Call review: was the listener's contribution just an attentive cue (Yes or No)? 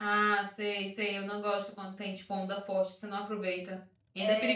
No